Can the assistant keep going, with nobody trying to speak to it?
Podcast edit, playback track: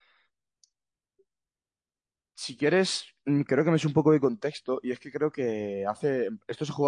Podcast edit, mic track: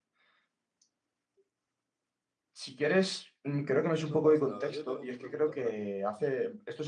No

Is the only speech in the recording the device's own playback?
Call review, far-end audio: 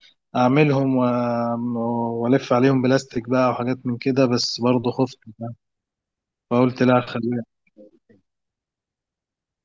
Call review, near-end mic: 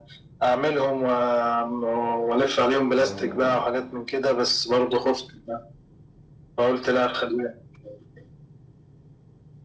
No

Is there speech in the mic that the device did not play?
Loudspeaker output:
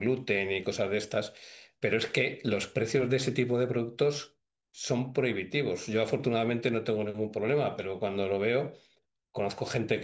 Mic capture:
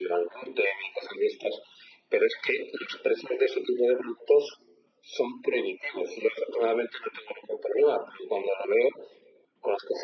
No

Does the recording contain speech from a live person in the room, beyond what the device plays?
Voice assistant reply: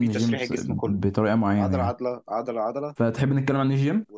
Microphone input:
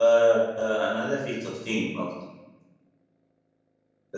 Yes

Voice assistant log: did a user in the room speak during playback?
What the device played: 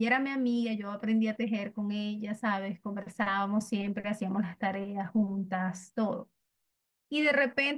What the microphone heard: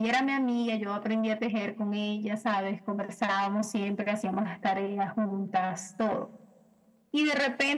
No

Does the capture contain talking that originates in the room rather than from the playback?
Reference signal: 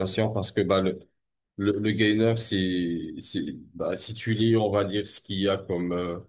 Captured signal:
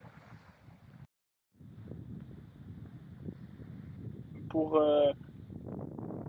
Yes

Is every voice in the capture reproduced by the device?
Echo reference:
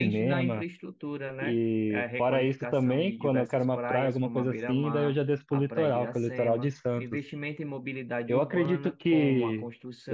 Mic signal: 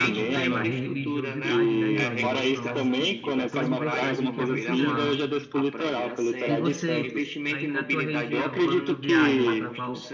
No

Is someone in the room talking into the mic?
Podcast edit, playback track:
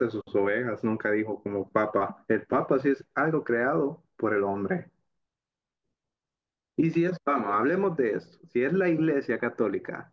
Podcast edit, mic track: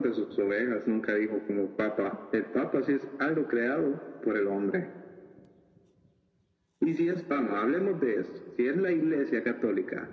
No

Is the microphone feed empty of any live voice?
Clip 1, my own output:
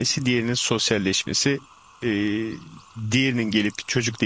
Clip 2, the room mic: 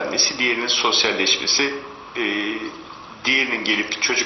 Yes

